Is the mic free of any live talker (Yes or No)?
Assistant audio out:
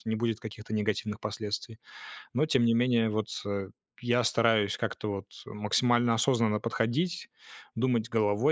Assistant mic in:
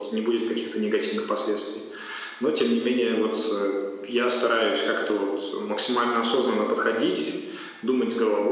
Yes